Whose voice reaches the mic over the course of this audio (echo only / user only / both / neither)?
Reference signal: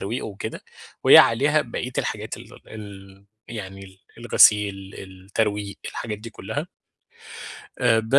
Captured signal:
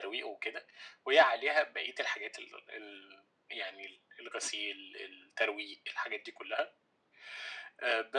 echo only